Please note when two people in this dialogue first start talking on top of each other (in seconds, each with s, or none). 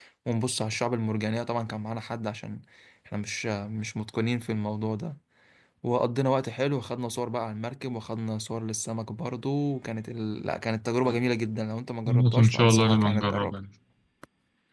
12.0 s